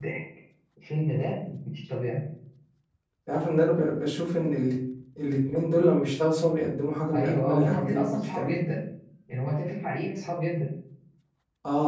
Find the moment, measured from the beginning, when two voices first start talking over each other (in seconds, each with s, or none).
7.1 s